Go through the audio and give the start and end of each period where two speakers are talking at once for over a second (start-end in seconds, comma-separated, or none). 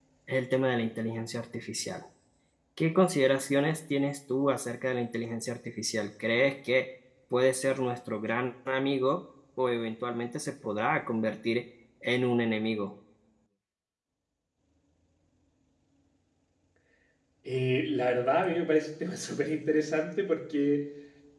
none